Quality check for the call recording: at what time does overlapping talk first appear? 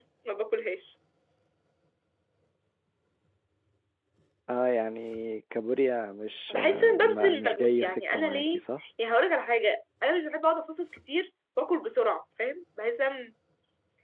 6.5 s

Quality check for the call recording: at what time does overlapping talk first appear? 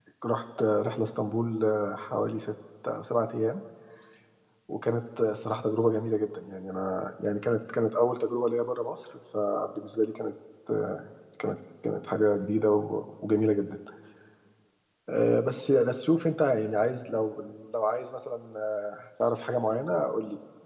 none

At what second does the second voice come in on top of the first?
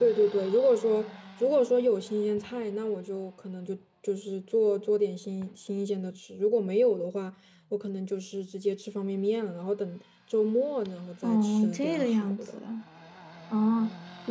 11.2 s

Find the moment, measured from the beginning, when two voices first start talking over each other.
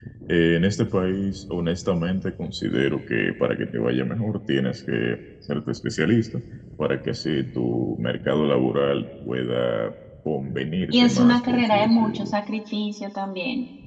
10.9 s

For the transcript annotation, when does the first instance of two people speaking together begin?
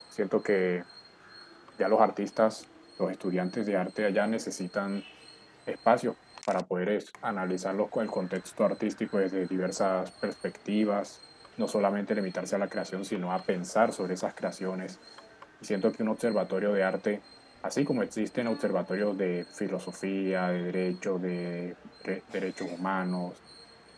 none

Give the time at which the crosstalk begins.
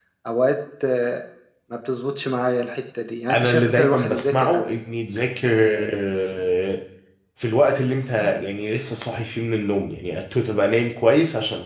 3.3 s

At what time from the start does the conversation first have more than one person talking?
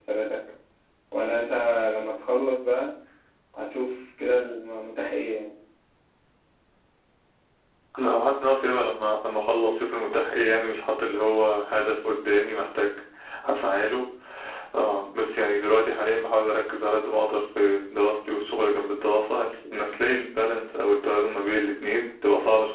none

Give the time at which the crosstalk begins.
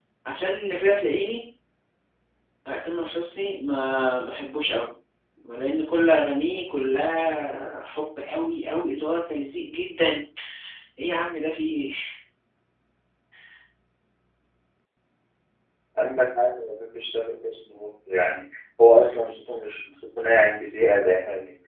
none

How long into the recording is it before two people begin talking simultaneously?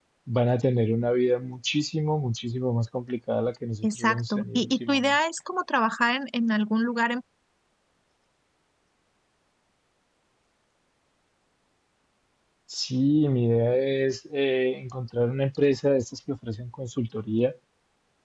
3.8 s

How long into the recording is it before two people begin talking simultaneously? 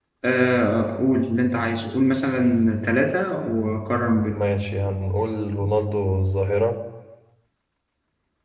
none

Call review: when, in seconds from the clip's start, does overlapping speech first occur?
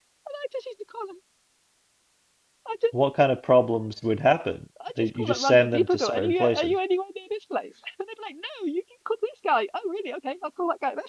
4.8 s

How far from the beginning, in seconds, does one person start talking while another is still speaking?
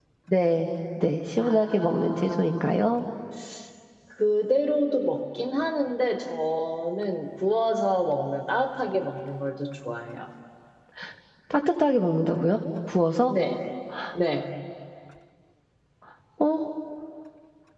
1.4 s

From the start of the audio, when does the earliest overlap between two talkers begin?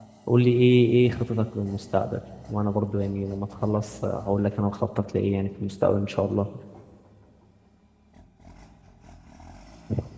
none

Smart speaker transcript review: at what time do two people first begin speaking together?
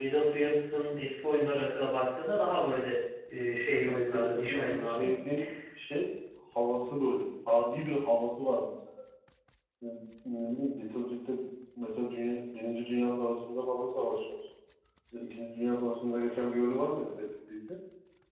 3.9 s

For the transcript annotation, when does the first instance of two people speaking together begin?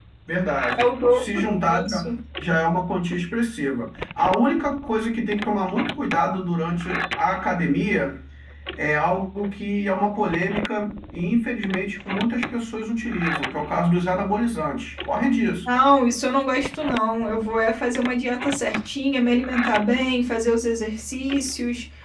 0.8 s

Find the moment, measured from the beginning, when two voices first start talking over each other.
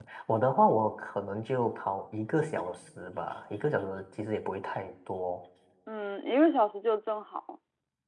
none

